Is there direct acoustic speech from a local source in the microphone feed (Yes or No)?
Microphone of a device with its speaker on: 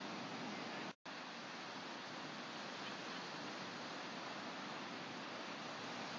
No